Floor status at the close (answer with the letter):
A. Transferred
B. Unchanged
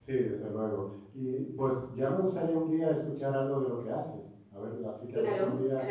A